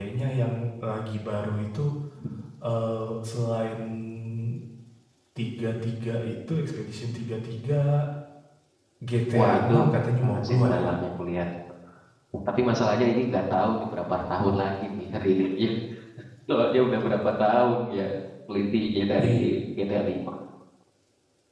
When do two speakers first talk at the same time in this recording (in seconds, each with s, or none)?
9.3 s